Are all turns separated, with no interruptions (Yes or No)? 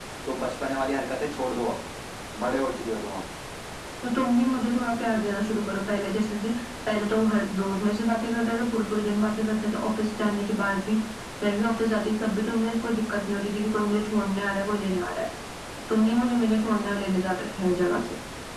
Yes